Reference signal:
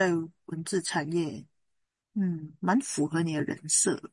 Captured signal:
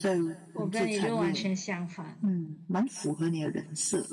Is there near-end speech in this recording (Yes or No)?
Yes